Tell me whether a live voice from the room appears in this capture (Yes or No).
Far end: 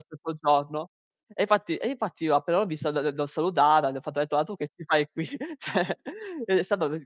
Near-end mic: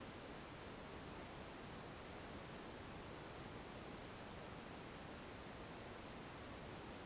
No